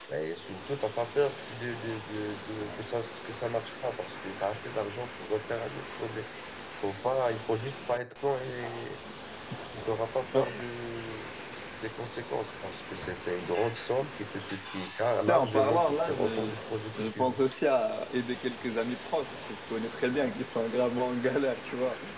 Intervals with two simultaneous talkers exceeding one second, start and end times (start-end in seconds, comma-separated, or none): 15.3-16.5